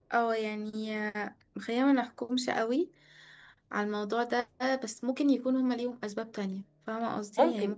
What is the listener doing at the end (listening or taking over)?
taking over